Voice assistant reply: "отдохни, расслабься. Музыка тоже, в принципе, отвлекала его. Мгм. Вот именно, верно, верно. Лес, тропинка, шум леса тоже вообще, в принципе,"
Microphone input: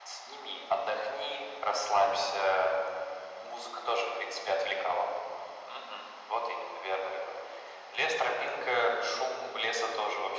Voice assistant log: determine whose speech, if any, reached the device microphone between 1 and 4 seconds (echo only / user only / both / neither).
echo only